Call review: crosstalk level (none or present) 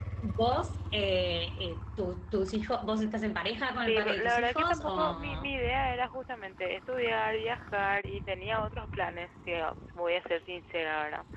present